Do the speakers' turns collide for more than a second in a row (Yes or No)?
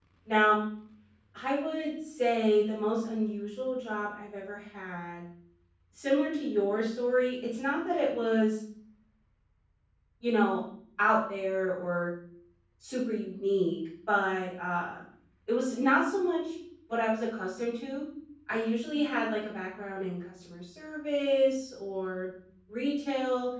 No